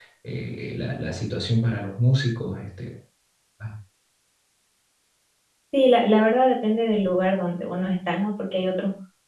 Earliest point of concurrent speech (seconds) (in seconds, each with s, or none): none